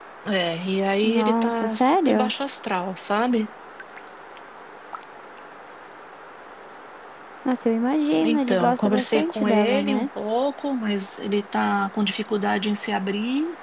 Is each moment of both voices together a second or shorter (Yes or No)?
No